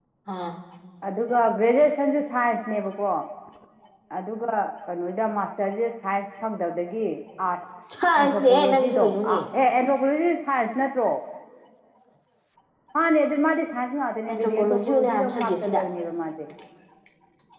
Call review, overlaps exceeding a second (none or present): present